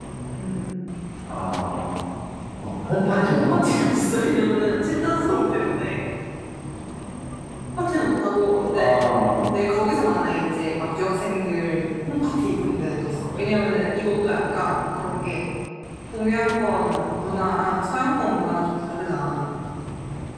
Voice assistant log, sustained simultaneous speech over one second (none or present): present